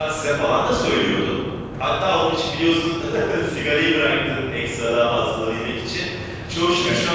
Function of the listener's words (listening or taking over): listening